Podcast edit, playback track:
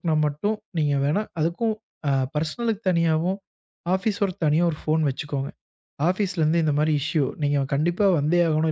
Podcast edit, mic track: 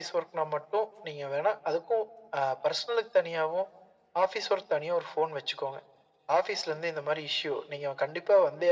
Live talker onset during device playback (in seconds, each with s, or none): none